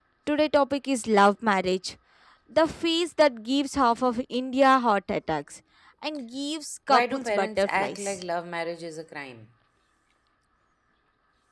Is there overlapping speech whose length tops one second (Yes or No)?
Yes